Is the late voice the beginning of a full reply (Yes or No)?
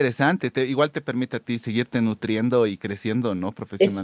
Yes